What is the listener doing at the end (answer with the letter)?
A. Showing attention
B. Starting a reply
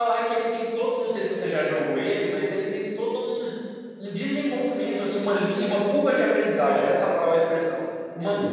A